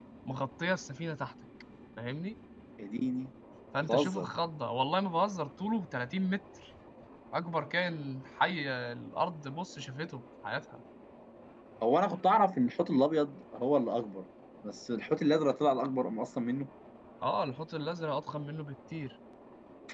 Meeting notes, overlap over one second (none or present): none